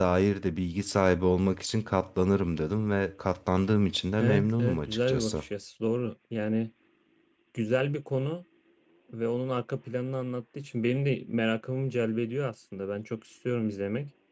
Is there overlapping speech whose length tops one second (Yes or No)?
Yes